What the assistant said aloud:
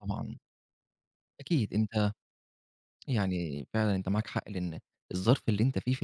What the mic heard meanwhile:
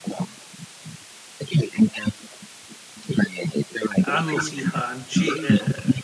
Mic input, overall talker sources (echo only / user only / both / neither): both